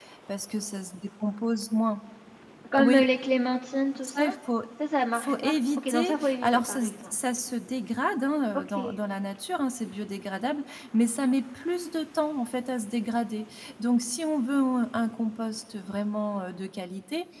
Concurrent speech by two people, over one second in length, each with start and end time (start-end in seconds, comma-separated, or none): 5.1-7.2